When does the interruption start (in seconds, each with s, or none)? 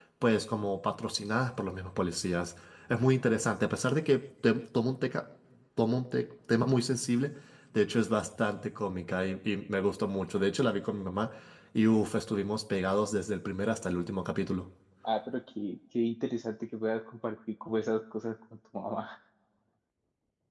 none